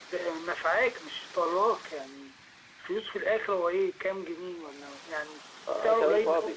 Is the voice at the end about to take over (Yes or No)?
Yes